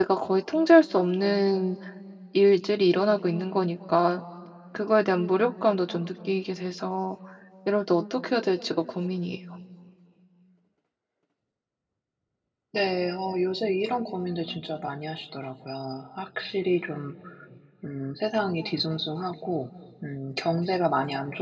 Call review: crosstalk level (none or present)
none